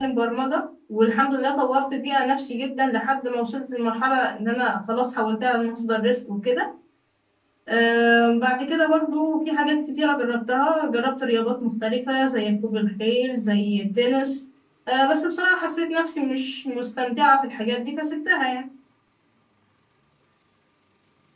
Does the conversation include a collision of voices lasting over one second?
No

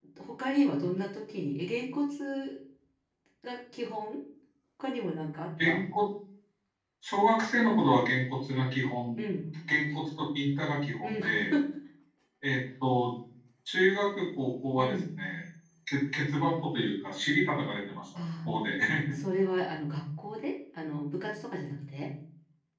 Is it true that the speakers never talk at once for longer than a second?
Yes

